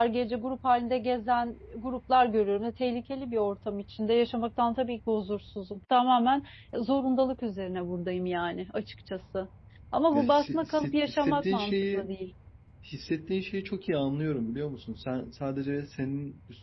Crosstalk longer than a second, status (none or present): present